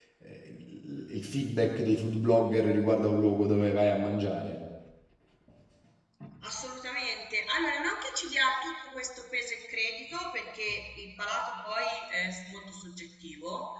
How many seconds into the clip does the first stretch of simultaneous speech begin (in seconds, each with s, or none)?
none